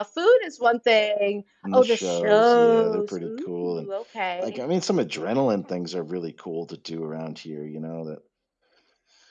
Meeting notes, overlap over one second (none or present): present